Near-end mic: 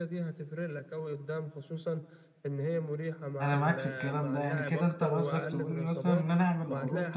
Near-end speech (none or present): present